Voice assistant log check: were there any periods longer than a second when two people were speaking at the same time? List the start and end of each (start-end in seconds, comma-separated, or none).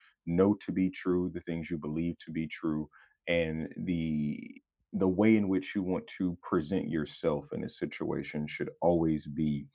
none